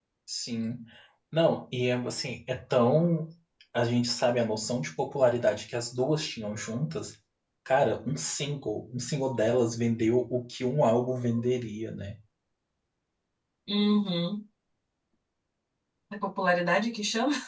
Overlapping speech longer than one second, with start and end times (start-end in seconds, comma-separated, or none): none